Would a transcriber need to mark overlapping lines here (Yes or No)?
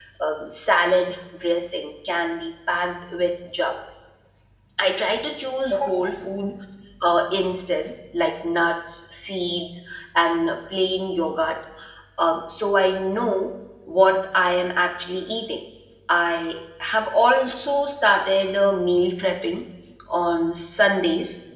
No